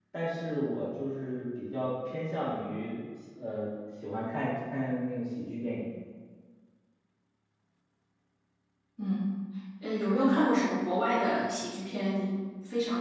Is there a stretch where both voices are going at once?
No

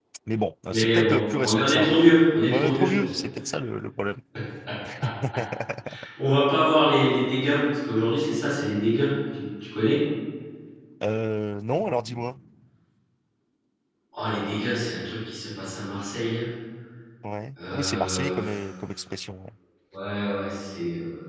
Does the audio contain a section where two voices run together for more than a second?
Yes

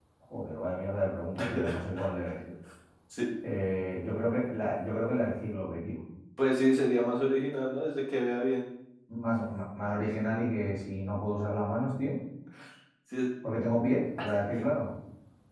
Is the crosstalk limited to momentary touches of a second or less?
Yes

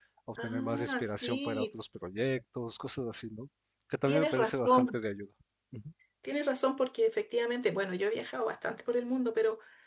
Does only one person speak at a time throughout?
No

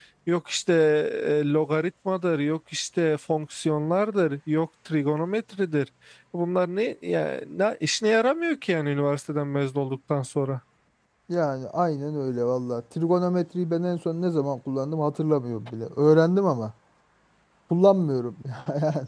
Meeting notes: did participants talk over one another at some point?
No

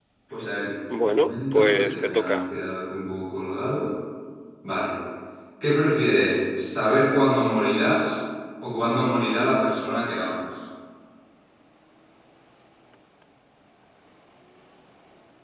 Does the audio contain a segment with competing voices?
Yes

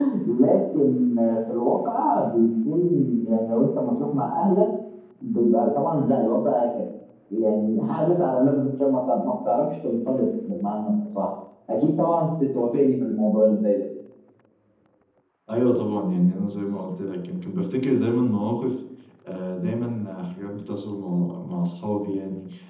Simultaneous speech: No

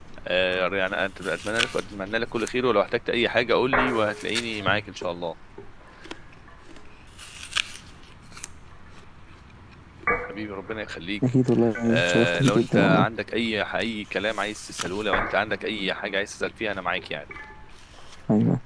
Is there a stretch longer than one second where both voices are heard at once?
Yes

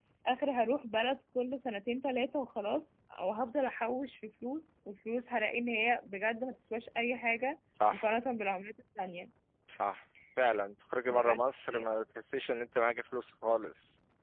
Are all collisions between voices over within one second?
Yes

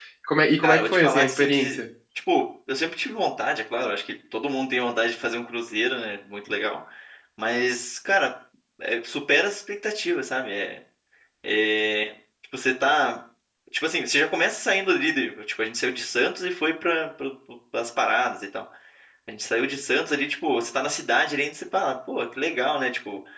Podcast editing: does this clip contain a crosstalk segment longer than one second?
Yes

